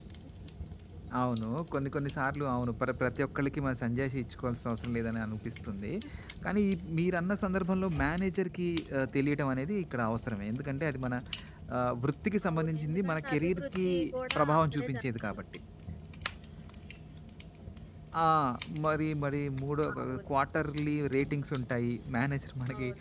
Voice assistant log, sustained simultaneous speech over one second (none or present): present